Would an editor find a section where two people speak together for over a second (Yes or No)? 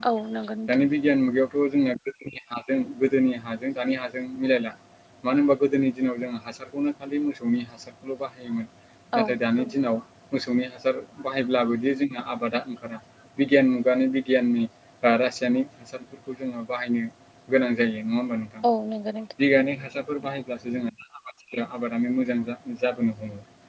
No